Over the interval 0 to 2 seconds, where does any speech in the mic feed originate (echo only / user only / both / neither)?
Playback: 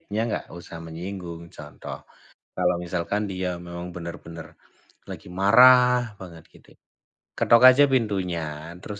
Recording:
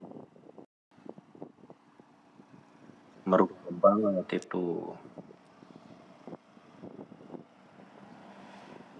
neither